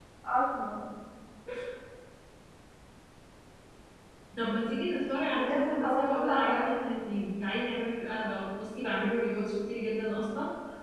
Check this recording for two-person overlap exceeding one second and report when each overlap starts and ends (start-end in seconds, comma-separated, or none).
5.3-6.9